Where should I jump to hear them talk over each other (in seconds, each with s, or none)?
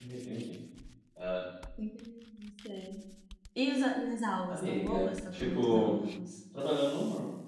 4.5 s